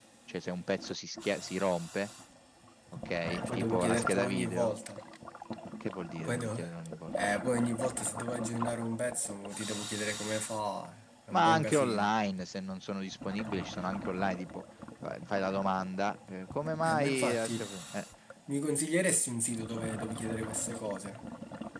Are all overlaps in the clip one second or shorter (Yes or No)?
No